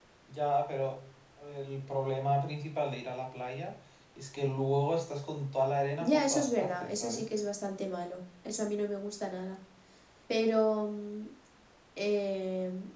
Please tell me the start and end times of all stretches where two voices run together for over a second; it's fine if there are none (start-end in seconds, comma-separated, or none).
6.0-7.2